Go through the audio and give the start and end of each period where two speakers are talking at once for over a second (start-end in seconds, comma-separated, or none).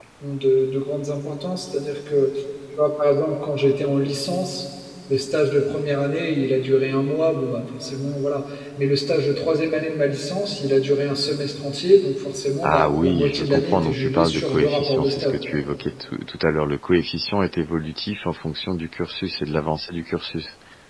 12.6-15.3